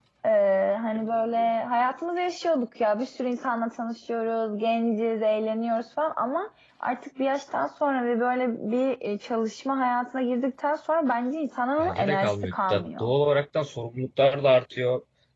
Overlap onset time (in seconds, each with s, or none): 11.8 s